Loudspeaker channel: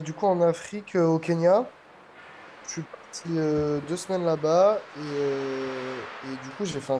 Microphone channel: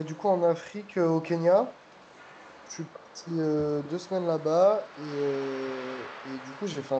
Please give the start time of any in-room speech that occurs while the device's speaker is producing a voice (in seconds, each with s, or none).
none